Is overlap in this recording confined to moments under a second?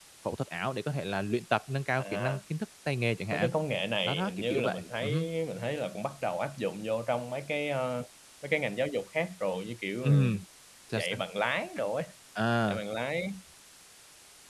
No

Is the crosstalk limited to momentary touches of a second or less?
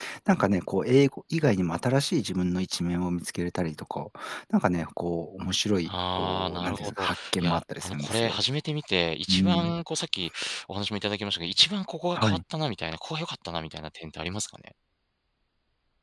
No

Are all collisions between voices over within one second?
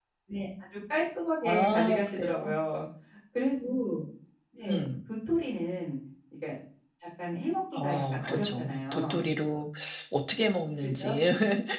No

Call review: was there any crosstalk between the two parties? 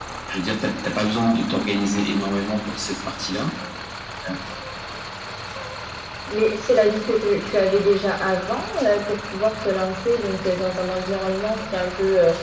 No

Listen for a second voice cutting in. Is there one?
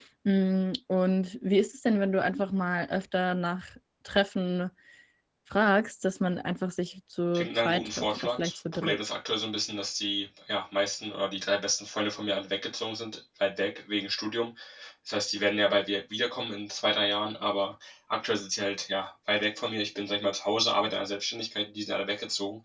Yes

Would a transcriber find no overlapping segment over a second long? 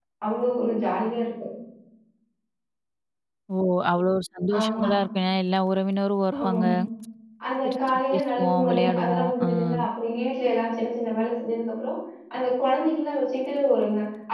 No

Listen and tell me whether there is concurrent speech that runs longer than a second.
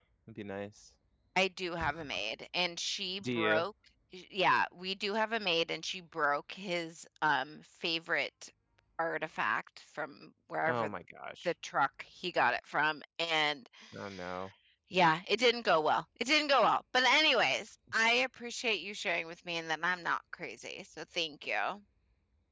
No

